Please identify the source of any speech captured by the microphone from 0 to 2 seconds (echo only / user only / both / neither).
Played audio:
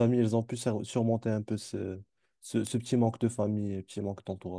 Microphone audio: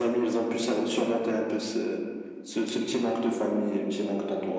echo only